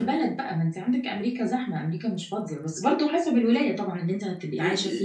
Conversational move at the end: taking over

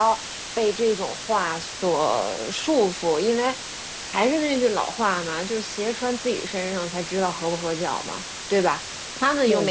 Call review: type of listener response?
listening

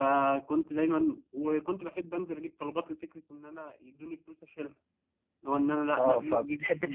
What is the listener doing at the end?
taking over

